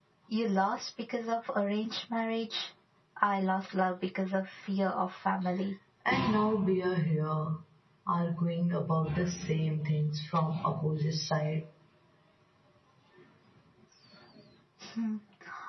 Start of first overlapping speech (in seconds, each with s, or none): none